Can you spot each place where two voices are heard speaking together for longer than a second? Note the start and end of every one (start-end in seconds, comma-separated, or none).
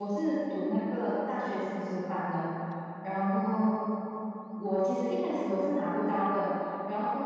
none